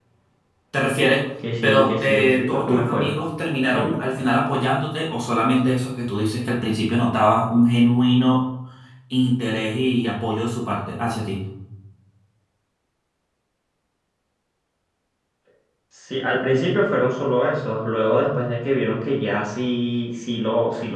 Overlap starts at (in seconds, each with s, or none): 1.6 s